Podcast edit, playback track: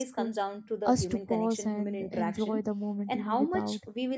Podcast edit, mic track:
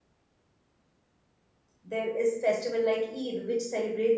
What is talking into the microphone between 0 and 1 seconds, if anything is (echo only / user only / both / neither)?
neither